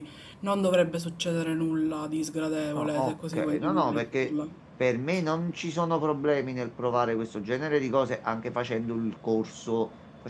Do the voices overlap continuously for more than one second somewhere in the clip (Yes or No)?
Yes